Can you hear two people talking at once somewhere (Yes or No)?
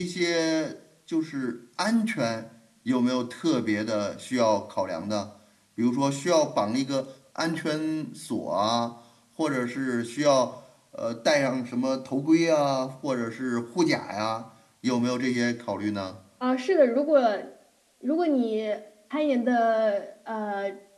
No